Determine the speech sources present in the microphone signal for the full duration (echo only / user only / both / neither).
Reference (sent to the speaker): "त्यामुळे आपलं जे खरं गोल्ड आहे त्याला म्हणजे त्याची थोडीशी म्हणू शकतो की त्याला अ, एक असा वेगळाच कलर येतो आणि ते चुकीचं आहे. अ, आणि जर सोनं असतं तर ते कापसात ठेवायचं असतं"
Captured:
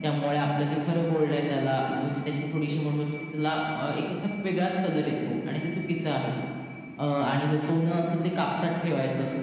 echo only